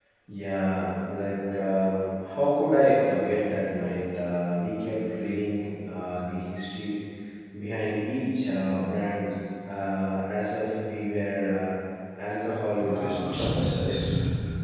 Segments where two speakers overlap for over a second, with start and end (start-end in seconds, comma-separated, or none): 12.8-14.0